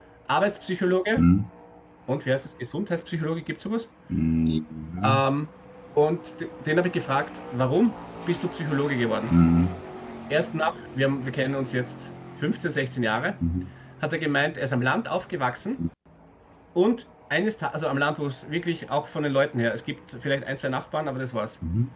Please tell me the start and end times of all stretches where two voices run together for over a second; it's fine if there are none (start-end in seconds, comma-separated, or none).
none